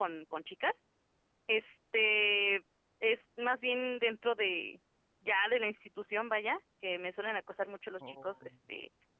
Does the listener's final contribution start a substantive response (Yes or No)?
No